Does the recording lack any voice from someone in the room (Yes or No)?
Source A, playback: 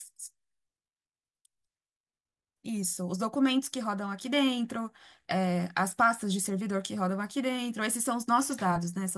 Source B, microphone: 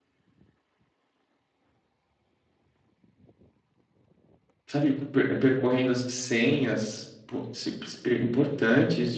No